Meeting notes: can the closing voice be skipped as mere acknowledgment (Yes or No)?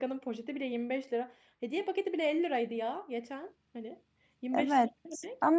No